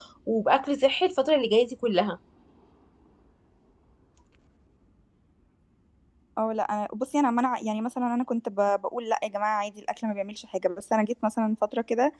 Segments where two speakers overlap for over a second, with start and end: none

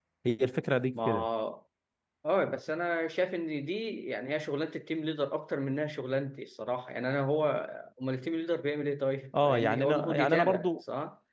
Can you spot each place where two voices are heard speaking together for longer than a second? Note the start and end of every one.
9.4-10.7

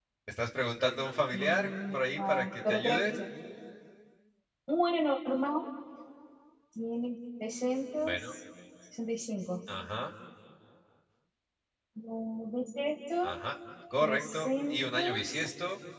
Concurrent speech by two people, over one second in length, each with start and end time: 1.3-3.1, 14.0-15.4

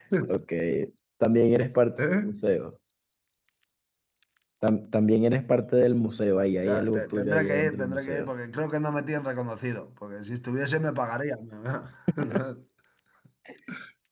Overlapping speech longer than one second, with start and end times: 6.6-8.3

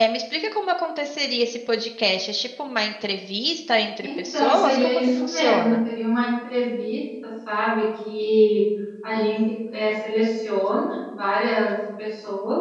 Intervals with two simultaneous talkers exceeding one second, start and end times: 4.0-5.8

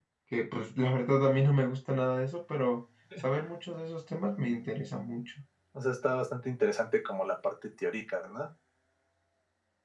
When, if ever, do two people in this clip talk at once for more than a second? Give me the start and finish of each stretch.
none

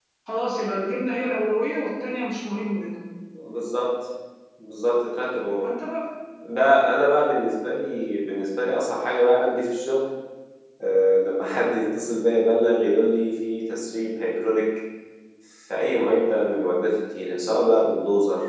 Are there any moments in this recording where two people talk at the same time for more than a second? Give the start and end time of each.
none

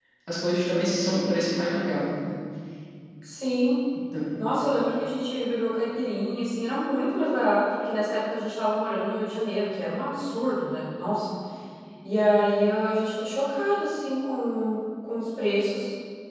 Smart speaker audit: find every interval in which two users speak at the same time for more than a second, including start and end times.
none

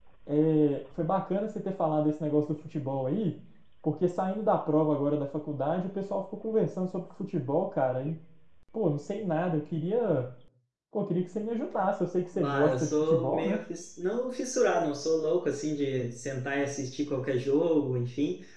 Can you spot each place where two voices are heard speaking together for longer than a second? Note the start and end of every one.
12.4-13.6

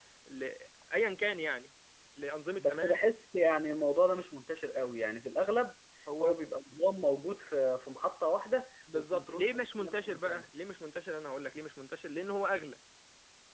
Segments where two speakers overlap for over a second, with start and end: 8.9-10.5

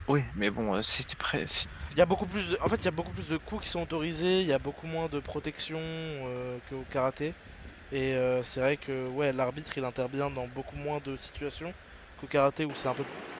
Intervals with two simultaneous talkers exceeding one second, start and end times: none

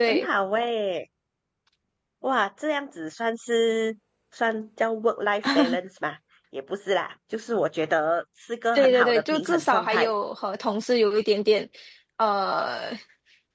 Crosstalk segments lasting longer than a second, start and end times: 8.8-10.1

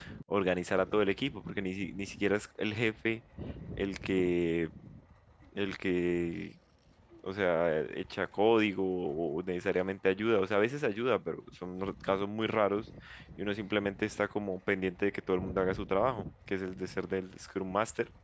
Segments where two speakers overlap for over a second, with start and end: none

